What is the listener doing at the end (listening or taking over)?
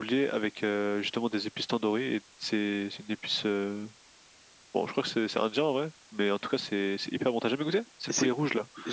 taking over